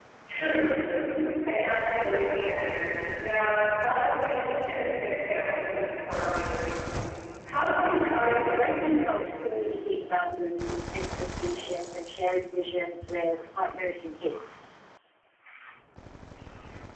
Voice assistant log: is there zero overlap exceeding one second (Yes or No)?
Yes